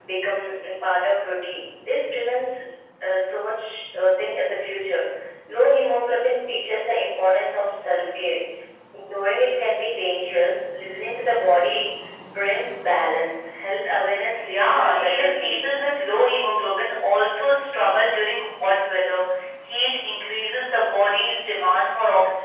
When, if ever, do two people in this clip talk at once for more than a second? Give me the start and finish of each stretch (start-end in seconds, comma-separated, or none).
14.4-15.7